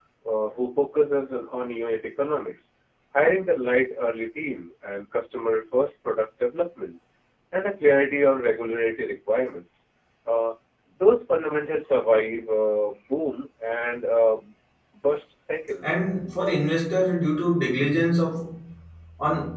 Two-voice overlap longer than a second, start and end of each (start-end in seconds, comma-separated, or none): none